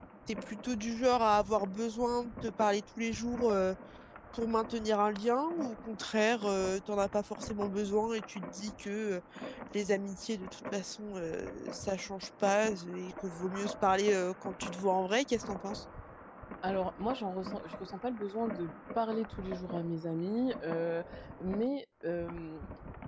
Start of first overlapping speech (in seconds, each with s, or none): none